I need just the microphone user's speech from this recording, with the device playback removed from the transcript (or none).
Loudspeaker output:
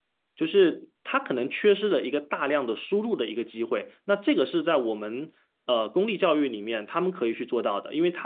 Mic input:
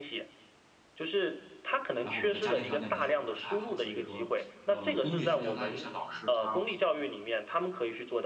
然后我的家庭条件其实也不是太好，所以说，呃，公立学校他有些老师他，